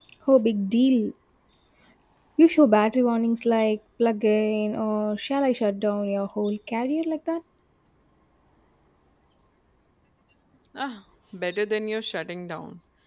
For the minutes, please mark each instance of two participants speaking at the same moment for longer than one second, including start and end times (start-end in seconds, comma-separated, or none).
none